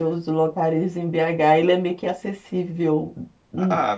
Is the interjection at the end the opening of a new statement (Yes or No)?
Yes